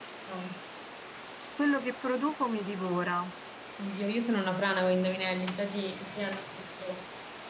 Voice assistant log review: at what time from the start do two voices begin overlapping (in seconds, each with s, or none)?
none